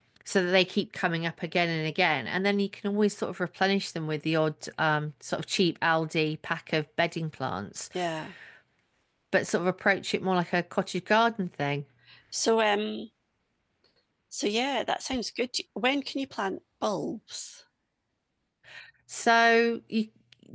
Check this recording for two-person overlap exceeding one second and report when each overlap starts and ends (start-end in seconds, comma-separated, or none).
none